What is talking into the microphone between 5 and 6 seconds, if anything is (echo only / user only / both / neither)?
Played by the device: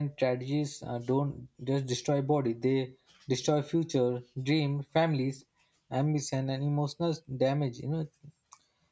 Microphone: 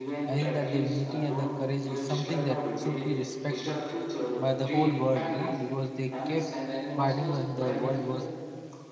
both